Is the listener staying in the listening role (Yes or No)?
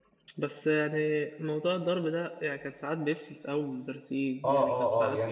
No